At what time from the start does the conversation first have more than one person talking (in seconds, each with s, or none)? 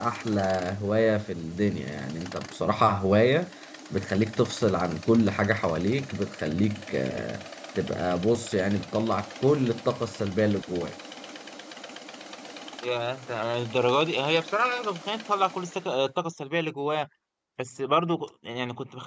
none